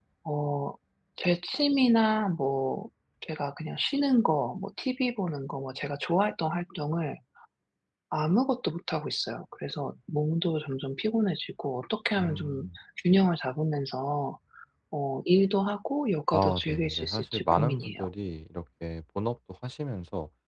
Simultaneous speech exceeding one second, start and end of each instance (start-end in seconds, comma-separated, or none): 16.3-18.0